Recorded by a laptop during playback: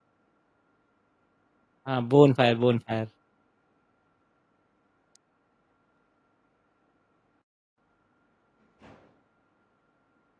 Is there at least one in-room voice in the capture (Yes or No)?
Yes